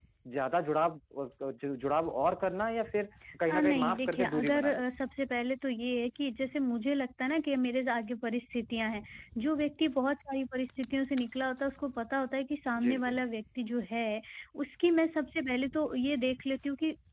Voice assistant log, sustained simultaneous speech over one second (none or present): present